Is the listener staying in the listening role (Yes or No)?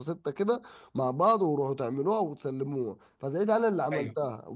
Yes